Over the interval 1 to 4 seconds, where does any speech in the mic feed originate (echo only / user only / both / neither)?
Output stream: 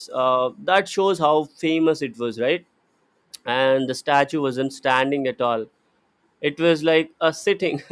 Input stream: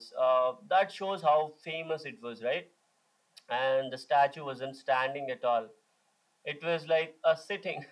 echo only